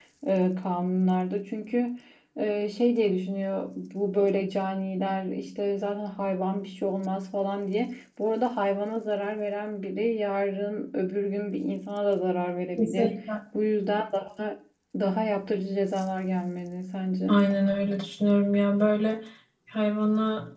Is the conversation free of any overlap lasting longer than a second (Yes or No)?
Yes